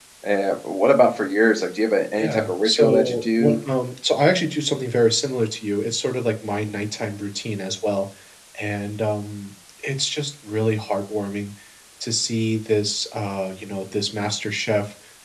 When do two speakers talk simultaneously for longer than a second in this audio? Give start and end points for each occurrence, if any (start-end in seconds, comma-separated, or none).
2.1-3.6